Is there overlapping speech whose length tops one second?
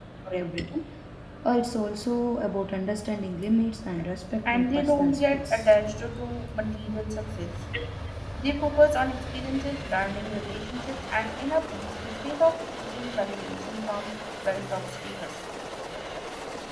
Yes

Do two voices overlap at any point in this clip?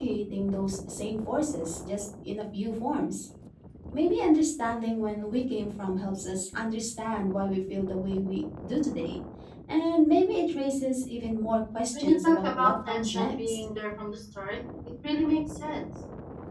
Yes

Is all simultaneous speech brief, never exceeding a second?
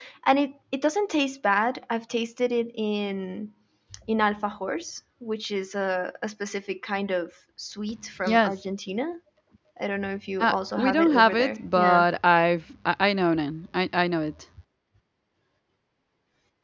No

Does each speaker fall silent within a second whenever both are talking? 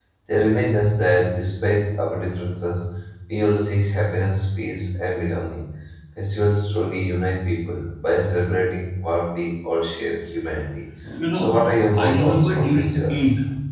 No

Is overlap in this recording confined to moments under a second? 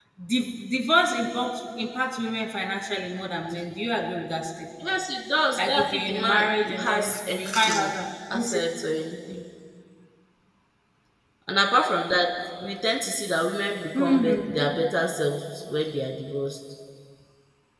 No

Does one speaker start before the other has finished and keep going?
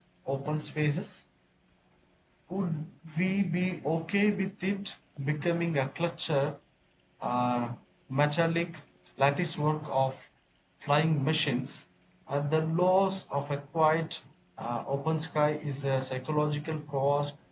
No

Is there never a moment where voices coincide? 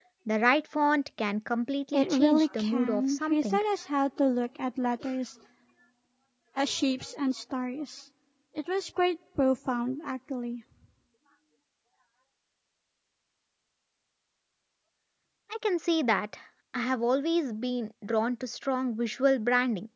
No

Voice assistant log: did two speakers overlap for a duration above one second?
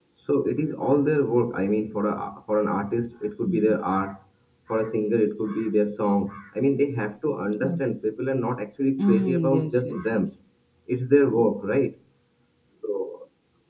Yes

